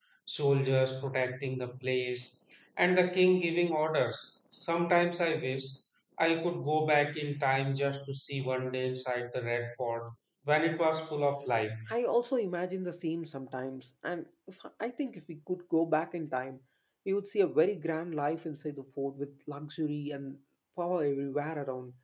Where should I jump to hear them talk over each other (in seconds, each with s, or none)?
none